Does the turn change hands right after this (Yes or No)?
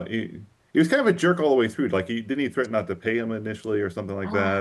Yes